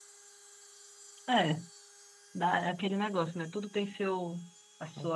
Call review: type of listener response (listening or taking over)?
listening